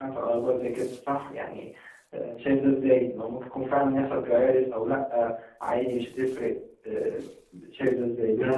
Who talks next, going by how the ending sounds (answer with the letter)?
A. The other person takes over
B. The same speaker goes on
A